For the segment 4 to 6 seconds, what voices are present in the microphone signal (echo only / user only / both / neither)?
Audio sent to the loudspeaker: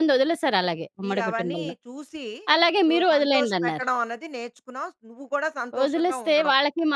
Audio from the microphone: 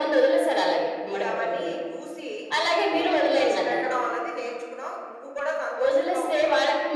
echo only